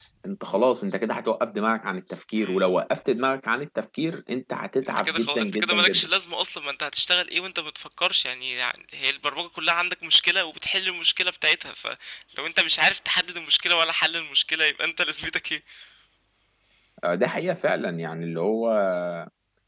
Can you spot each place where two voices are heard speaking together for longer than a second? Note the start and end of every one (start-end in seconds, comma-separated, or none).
4.8-6.1